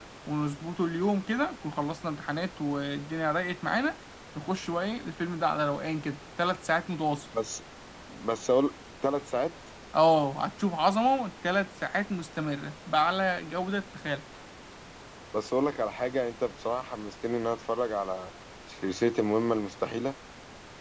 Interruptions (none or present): none